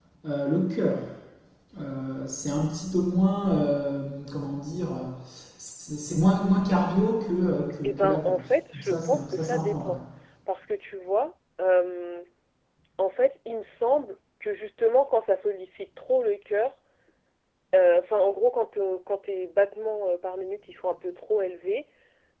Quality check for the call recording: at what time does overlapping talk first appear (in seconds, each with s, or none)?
7.8 s